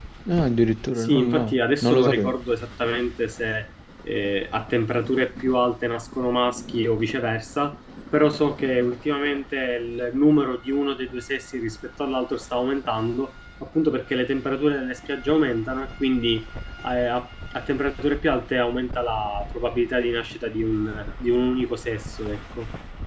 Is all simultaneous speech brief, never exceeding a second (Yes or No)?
No